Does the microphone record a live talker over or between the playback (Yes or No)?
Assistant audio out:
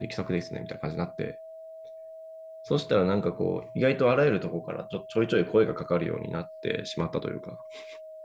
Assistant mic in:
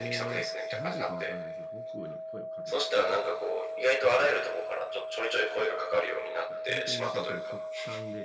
Yes